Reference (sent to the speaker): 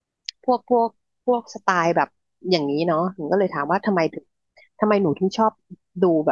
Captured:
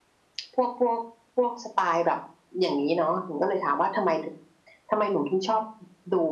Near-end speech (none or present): none